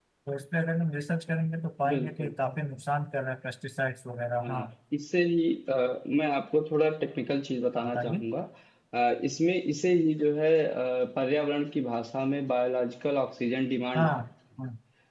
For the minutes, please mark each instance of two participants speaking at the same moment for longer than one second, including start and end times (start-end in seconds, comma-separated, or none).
none